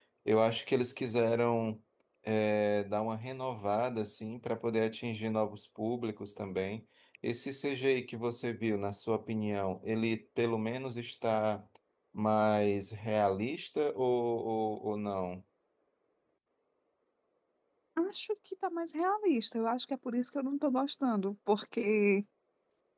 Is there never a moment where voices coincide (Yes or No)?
Yes